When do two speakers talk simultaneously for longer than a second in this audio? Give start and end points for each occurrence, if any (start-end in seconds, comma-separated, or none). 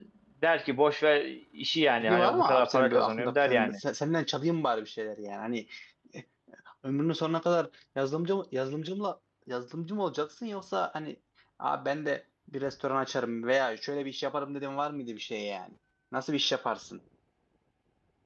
2.0-3.7